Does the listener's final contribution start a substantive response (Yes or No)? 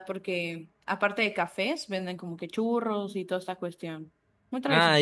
Yes